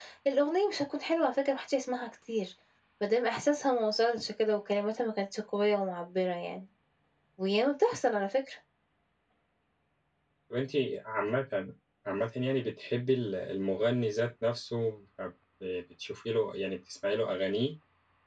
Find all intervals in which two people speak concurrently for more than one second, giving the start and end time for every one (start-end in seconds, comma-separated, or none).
none